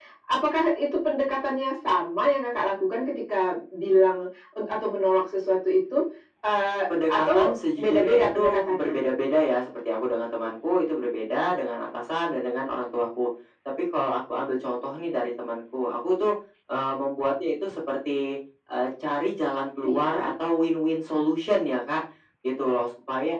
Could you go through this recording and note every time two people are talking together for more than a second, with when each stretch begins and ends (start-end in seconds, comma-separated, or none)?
7.0-9.0